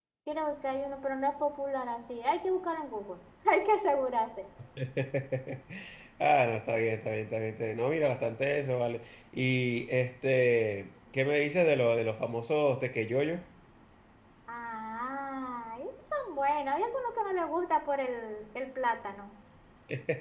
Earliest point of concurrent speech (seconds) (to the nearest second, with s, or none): none